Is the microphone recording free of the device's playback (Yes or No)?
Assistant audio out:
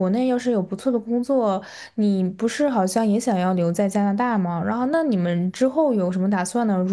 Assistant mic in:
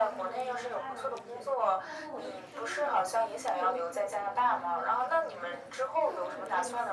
No